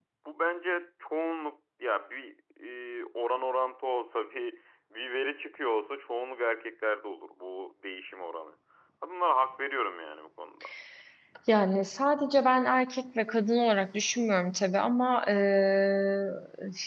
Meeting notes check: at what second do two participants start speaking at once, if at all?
none

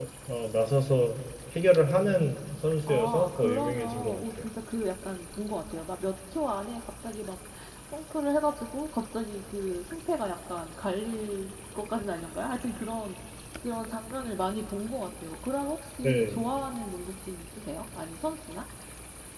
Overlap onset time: 2.9 s

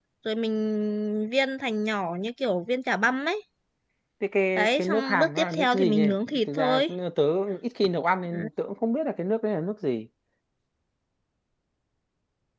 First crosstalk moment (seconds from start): 4.6 s

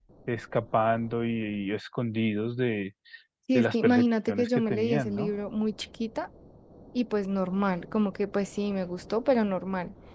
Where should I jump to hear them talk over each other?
3.5 s

